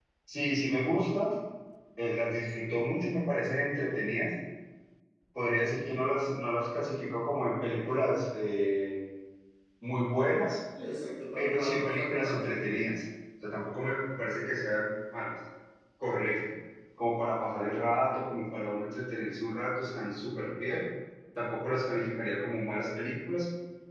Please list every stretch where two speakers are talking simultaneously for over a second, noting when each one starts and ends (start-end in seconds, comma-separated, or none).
11.4-12.6